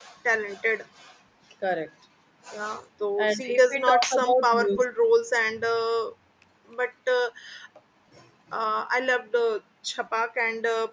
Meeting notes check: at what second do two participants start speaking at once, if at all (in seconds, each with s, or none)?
3.2 s